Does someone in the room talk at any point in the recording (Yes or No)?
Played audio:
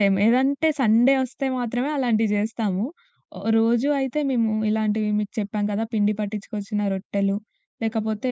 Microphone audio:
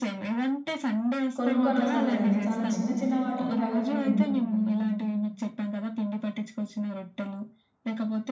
Yes